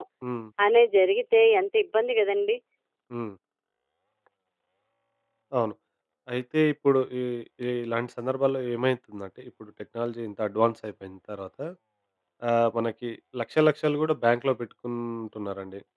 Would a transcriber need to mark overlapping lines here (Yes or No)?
No